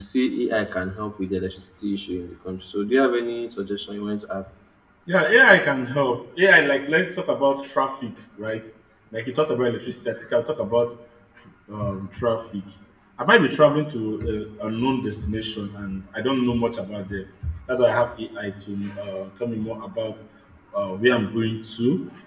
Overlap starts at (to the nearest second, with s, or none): none